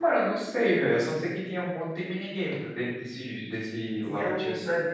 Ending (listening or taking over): taking over